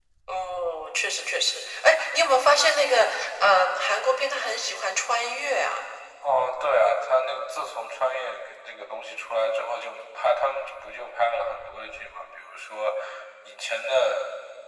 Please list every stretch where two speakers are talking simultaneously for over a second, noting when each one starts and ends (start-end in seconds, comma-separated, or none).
none